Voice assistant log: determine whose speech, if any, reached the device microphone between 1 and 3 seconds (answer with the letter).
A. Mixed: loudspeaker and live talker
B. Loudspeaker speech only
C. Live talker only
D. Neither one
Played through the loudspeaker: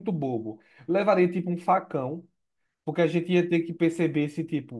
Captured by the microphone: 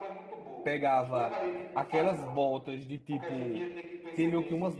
A